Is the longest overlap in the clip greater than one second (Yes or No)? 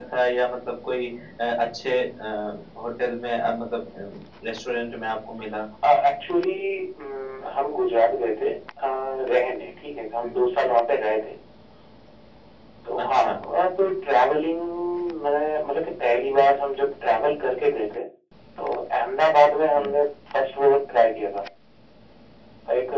No